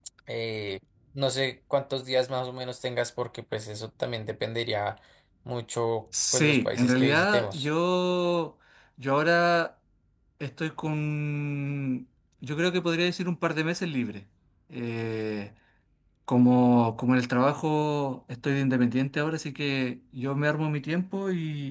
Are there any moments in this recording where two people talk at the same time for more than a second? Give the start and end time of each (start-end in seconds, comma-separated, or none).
6.3-7.7